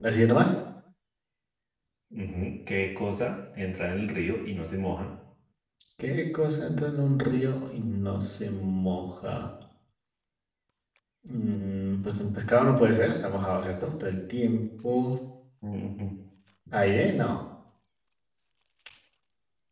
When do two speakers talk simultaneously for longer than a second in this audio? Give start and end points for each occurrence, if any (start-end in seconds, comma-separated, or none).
none